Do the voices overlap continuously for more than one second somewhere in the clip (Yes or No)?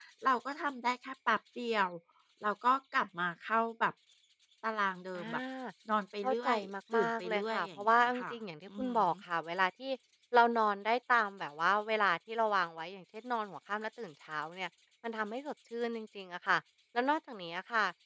Yes